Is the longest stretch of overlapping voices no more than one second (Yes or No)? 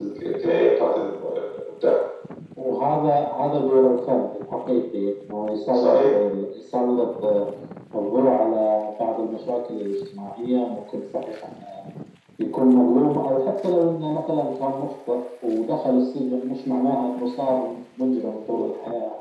Yes